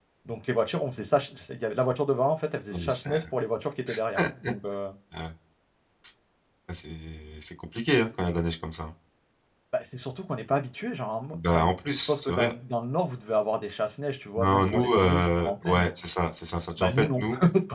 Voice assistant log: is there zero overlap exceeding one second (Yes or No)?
No